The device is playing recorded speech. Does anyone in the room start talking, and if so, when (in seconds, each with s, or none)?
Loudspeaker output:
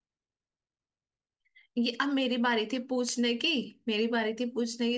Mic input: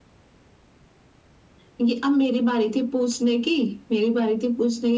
none